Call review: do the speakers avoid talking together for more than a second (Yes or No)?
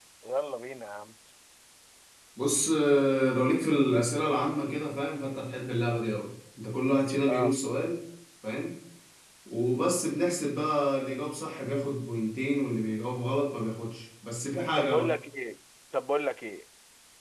Yes